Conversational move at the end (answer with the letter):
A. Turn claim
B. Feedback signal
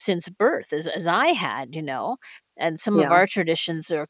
B